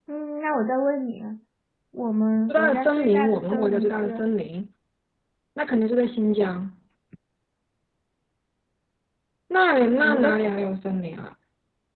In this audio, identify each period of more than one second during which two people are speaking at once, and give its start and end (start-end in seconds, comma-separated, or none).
2.5-4.2